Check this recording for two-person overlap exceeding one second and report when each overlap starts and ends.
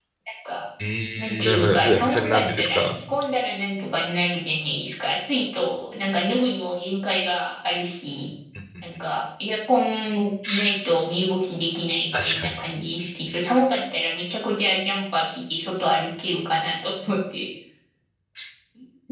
1.2-3.0

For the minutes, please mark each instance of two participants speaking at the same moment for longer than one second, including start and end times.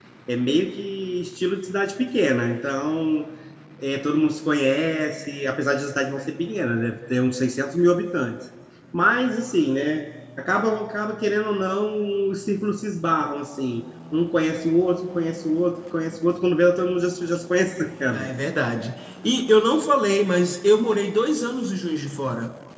none

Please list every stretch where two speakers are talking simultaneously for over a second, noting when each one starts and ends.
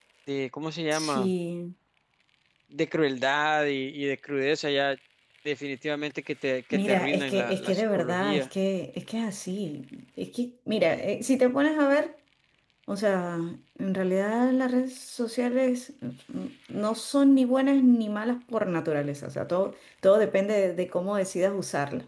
6.7-8.5

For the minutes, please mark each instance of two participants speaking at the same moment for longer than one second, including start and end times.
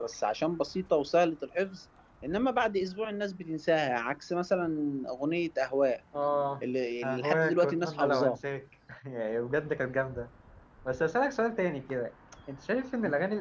7.0-8.4

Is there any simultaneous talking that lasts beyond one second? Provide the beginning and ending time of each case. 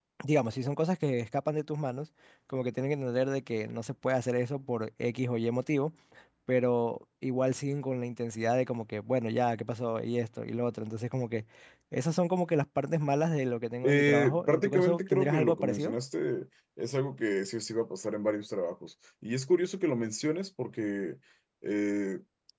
13.8-15.9

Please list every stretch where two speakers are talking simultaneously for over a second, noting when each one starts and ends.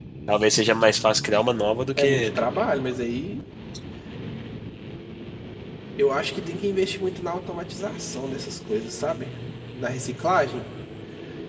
none

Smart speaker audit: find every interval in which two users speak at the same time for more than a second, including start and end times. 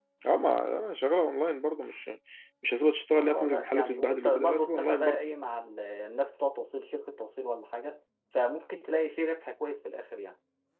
3.1-5.2

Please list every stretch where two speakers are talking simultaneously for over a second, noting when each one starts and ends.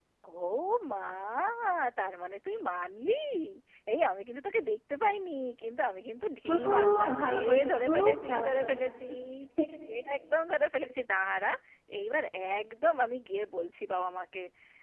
6.5-8.8

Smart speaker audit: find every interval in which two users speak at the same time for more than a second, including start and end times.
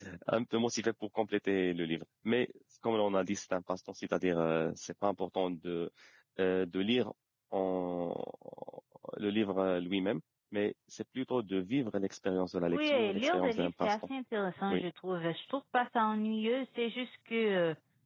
12.7-13.9

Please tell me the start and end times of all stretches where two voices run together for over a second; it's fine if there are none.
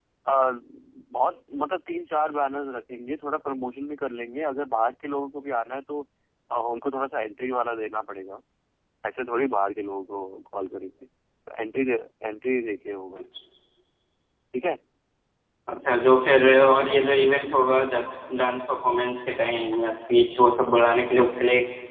none

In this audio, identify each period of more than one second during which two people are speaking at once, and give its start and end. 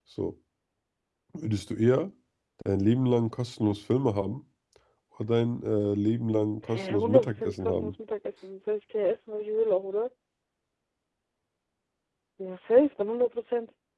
6.7-7.9

